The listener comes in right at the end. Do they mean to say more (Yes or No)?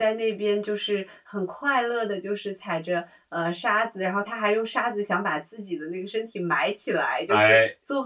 No